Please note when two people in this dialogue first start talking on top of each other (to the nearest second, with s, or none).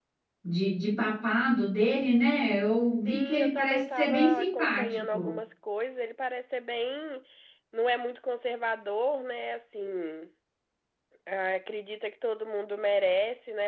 3 s